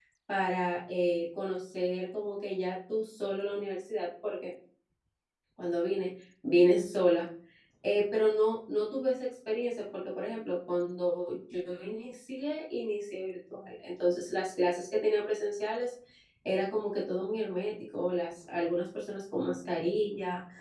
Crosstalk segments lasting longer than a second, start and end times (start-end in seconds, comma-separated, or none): none